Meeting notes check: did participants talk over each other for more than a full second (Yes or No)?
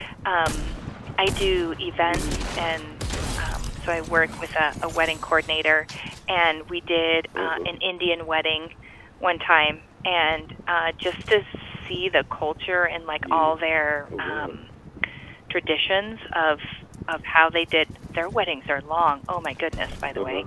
No